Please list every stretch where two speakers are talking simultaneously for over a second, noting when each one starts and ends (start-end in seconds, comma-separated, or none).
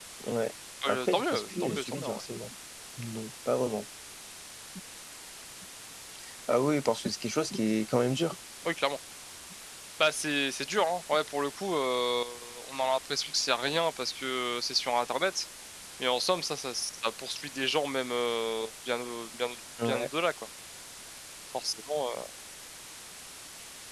0.9-2.2